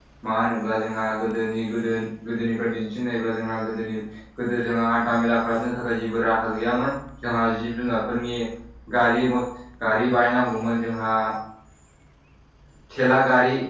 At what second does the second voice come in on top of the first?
none

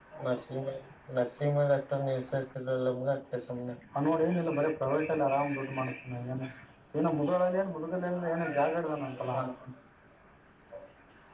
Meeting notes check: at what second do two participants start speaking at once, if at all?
none

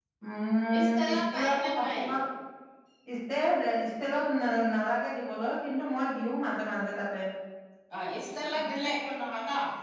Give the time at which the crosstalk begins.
0.8 s

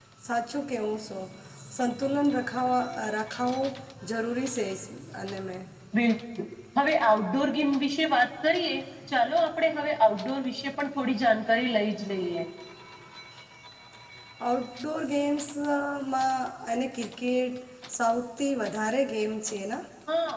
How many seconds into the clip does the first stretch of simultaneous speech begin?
none

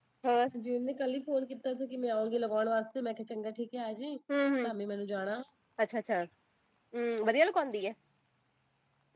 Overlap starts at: none

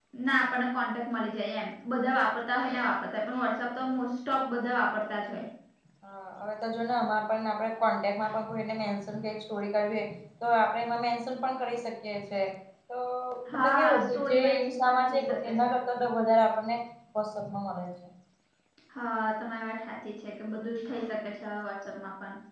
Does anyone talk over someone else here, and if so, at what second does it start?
13.5 s

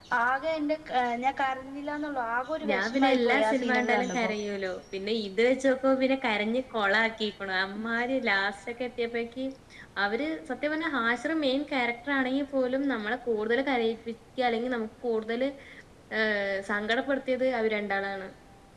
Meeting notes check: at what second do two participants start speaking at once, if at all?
2.6 s

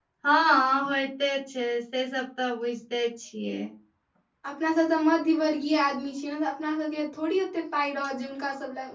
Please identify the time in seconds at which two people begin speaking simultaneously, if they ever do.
none

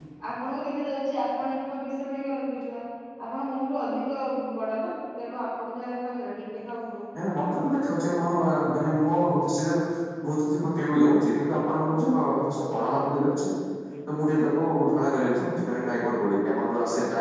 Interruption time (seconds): none

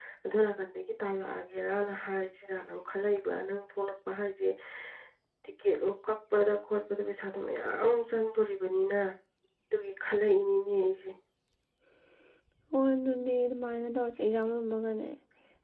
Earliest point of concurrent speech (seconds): none

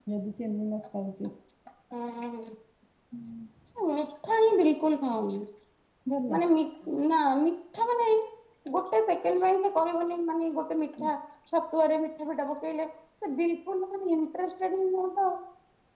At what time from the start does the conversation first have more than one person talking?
none

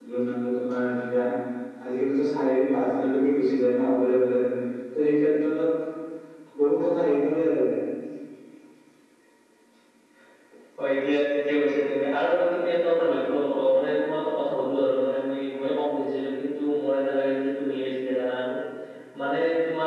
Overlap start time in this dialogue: none

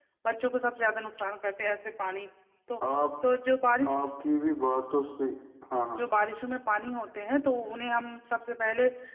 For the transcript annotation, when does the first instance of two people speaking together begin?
none

